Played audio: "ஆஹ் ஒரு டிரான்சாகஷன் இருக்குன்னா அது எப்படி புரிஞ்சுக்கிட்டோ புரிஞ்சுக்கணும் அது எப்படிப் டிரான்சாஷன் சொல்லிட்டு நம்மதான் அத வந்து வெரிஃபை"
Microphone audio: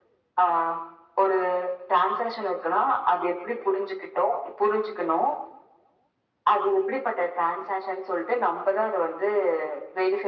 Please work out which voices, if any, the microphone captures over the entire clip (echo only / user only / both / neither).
echo only